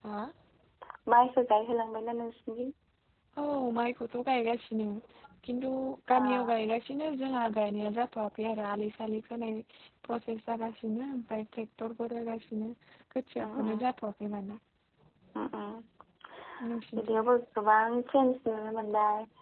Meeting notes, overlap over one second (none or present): none